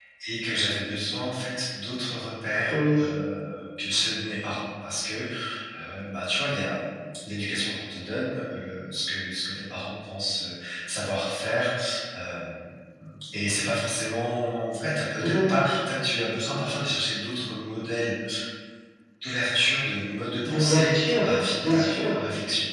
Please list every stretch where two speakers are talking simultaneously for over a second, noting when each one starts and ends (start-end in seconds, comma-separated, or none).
20.4-22.2